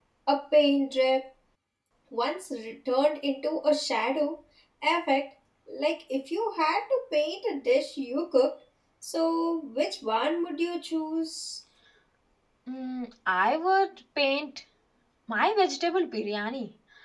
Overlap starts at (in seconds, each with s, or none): none